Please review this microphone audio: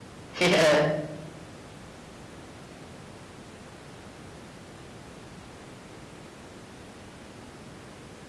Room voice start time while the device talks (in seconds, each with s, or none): 0.4 s